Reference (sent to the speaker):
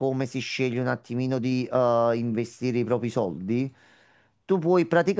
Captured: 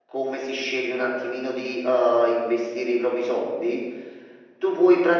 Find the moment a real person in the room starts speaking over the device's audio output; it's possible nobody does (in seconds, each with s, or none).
none